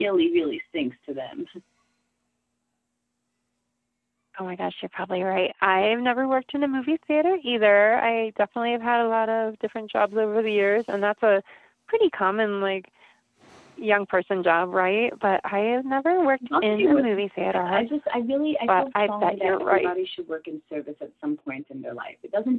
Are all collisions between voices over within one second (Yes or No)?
No